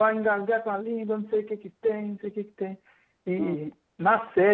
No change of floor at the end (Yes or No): Yes